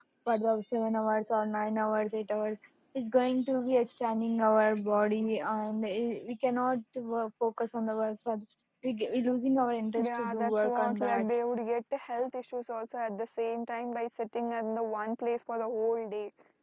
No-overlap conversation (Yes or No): No